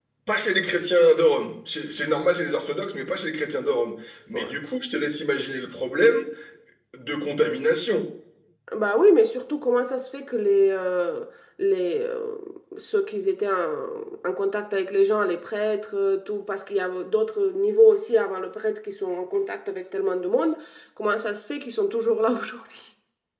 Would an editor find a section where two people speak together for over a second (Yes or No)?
No